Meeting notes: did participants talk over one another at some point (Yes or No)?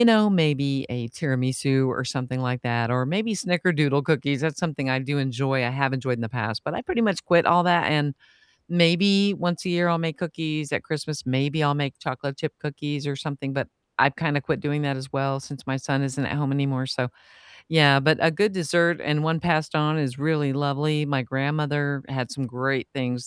No